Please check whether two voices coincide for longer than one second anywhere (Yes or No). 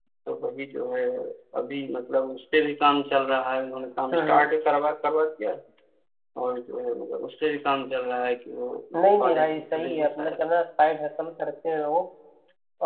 Yes